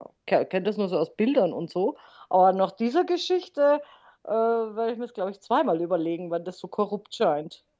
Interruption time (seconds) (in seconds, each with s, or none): none